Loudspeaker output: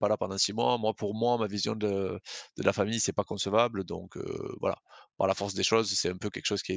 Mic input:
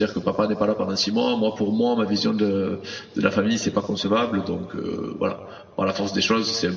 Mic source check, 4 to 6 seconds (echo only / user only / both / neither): echo only